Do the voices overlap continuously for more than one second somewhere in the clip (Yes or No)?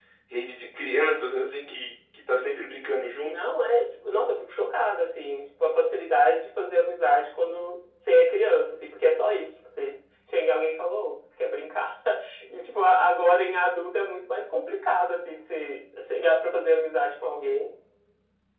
No